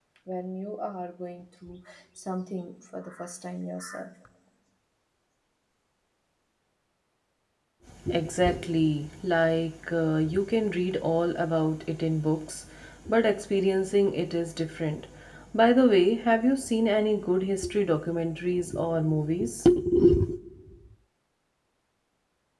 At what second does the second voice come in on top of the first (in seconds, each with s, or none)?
none